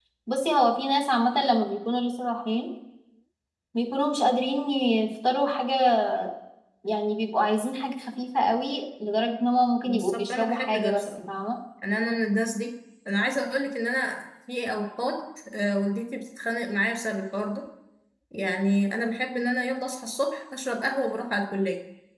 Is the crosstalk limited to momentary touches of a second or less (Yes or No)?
No